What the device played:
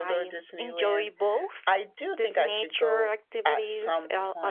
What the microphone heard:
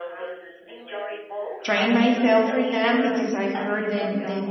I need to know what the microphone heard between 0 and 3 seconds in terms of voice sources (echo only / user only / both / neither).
both